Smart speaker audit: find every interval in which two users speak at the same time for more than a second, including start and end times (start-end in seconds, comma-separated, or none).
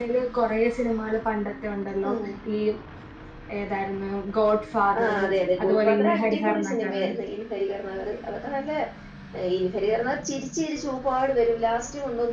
5.6-7.0